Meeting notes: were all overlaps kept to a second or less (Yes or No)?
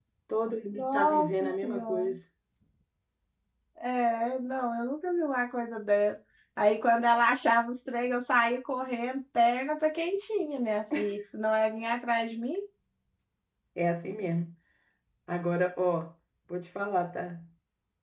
No